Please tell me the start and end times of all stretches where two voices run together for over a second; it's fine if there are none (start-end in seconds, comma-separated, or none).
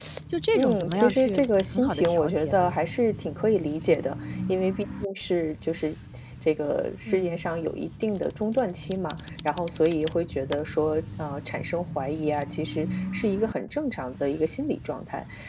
0.6-2.8